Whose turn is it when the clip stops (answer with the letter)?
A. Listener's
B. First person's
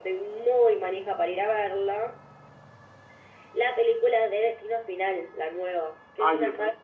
A